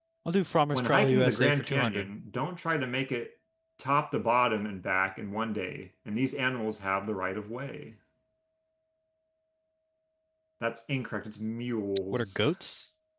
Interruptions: present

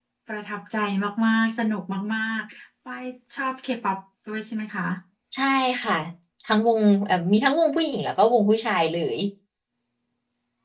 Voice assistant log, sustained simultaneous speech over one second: none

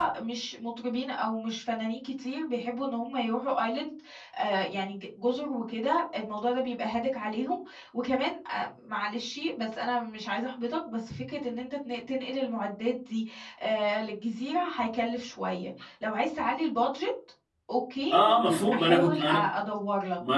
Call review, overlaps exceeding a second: present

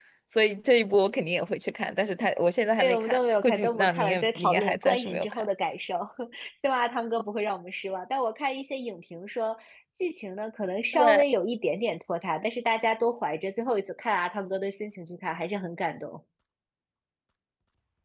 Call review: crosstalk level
present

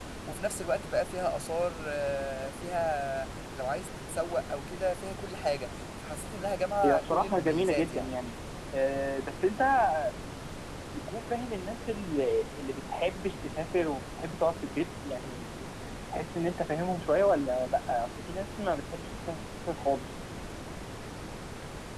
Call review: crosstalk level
present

